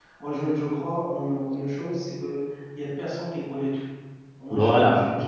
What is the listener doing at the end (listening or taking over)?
listening